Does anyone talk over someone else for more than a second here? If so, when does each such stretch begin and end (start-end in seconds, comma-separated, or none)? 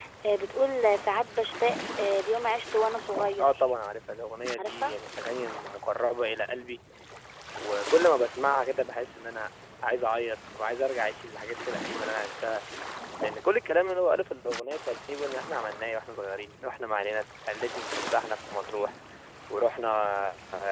none